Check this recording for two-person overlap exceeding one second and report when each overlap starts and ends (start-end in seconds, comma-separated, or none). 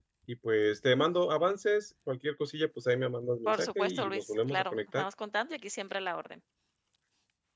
3.5-5.0